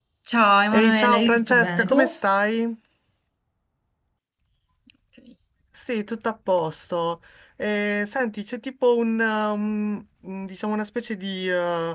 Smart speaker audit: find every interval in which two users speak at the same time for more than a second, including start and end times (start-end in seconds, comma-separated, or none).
0.7-2.0